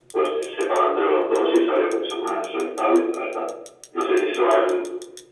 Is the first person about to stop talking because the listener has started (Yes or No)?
No